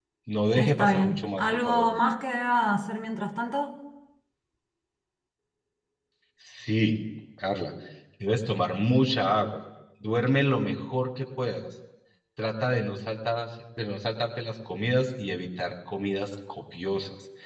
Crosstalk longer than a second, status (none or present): present